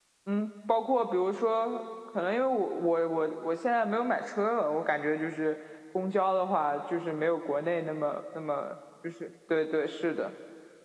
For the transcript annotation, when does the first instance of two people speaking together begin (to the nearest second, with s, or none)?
none